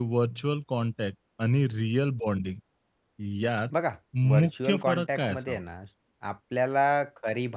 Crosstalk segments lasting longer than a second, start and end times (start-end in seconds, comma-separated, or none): 4.3-5.6